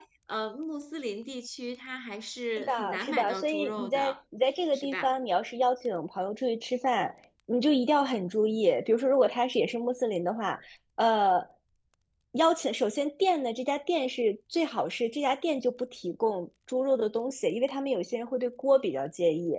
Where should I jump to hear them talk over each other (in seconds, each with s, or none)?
2.6 s